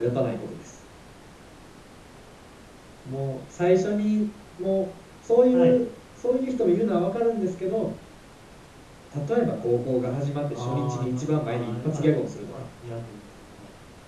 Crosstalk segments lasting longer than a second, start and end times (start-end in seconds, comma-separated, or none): 10.5-12.6